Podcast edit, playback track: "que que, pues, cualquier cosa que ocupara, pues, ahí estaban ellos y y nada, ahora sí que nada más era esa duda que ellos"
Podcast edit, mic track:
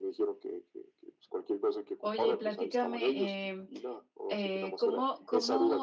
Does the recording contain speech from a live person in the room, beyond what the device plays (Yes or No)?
Yes